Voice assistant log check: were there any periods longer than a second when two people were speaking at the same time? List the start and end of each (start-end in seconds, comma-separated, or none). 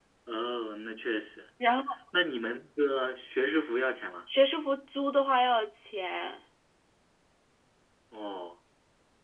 none